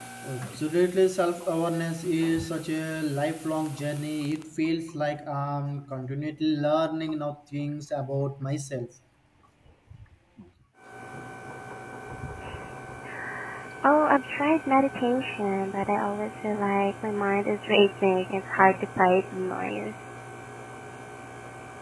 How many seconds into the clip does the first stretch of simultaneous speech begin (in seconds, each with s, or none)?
none